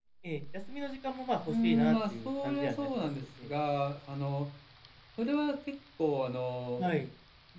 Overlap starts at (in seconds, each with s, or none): 1.5 s